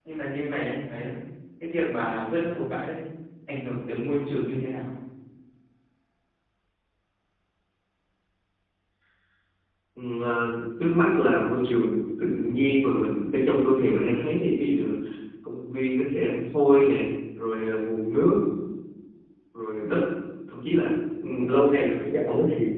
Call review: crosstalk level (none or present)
none